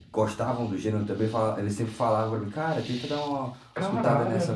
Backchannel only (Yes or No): No